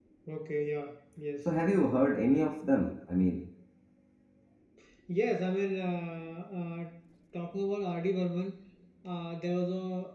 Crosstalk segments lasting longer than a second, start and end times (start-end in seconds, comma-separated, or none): none